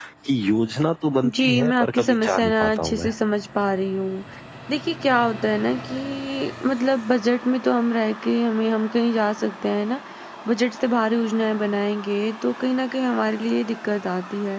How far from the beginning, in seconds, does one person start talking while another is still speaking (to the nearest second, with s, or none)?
1 s